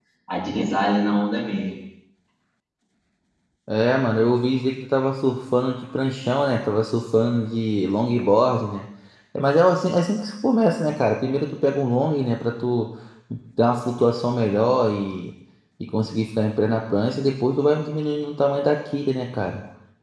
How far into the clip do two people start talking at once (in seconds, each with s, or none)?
none